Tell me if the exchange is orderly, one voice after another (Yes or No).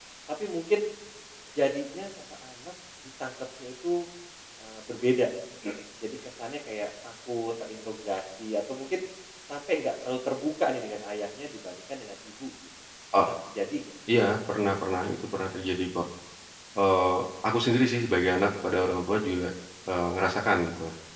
Yes